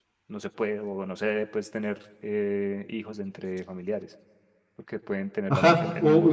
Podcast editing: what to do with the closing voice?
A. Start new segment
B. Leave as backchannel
A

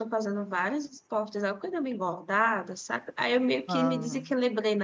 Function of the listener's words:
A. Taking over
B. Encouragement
B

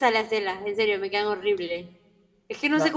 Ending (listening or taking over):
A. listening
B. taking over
A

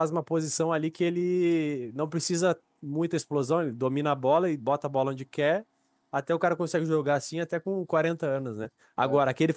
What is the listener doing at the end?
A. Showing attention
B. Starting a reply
A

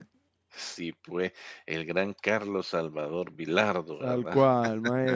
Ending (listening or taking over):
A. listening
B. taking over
B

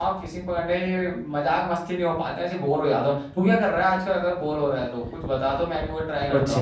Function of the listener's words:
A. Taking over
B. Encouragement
A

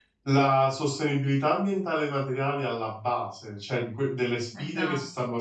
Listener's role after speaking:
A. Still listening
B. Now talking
A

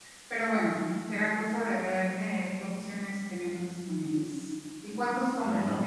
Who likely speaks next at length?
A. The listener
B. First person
B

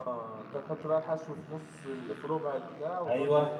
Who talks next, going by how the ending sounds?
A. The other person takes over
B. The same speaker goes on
A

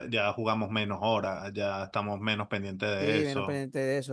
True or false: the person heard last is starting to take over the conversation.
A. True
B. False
A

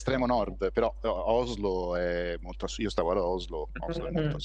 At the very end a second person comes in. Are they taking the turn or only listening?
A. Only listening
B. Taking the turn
A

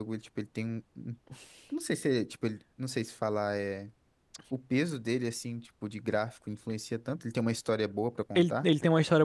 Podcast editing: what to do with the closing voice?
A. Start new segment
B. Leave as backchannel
A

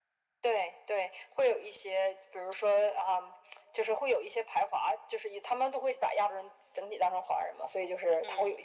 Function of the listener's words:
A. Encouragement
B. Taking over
A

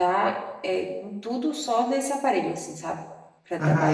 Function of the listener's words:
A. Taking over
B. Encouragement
A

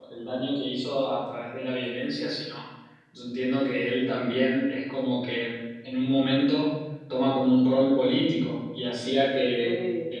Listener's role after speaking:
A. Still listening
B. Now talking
A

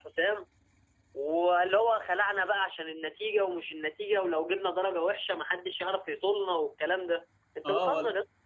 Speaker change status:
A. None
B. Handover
B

